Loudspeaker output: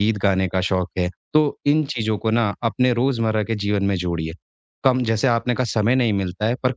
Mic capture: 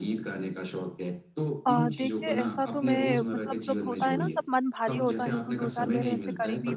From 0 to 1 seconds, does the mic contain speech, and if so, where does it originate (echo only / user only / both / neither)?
echo only